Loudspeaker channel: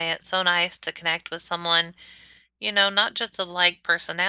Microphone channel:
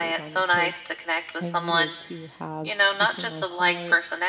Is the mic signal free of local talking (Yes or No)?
No